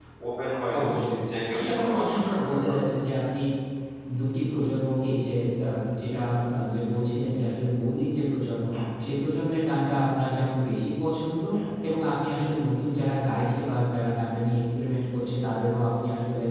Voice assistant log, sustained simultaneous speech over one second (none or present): present